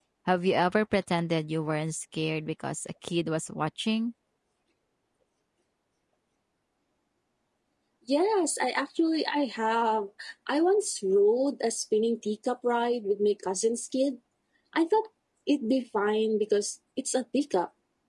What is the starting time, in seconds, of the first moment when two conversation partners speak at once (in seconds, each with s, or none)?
none